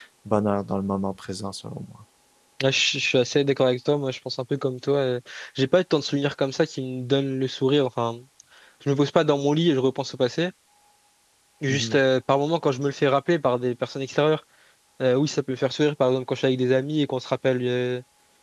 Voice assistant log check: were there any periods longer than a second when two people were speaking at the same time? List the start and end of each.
none

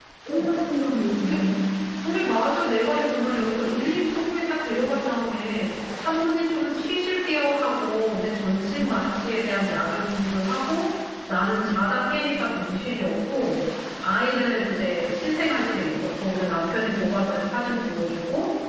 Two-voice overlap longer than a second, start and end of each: none

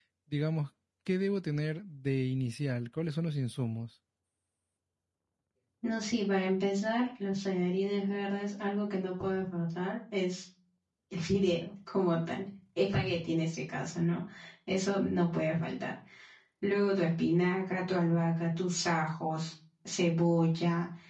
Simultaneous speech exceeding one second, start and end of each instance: none

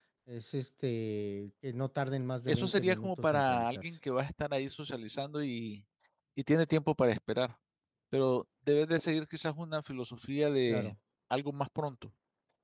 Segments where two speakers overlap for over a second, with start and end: 2.5-4.0

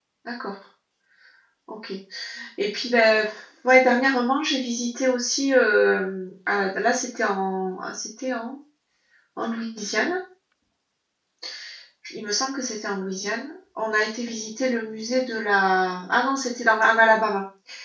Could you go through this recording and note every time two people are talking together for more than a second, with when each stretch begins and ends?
none

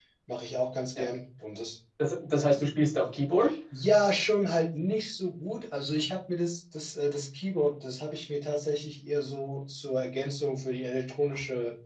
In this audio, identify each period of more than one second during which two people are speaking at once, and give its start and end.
none

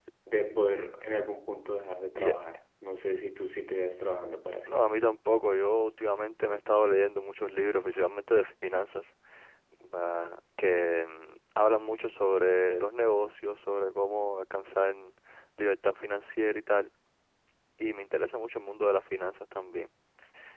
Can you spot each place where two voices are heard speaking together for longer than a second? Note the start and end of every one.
none

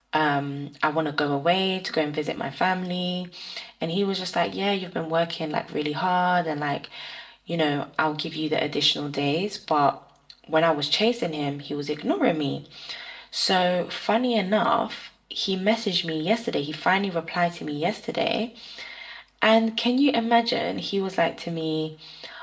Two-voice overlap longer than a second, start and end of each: none

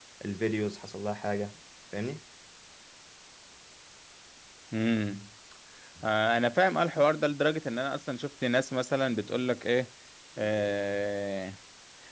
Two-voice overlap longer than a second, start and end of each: none

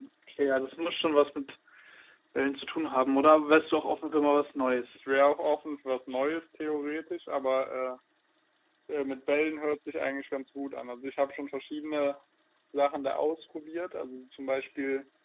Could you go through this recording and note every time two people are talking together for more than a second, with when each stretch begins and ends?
none

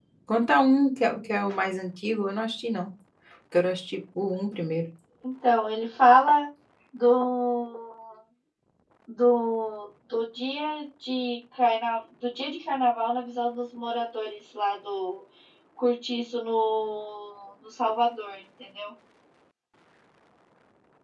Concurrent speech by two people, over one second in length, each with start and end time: none

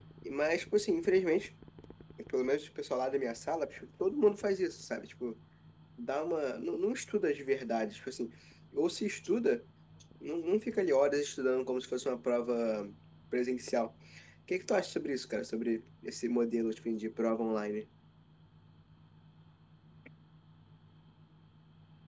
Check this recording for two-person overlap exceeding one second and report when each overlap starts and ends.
none

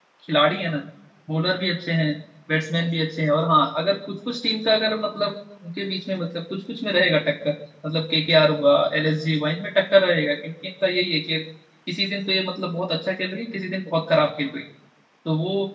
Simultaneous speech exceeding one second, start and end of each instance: none

